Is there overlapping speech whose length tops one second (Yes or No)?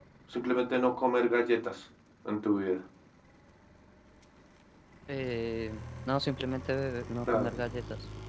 No